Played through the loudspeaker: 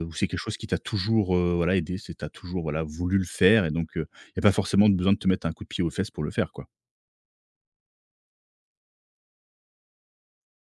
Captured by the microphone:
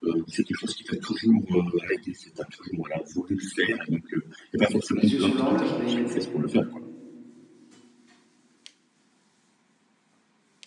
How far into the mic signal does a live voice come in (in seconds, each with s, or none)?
5.0 s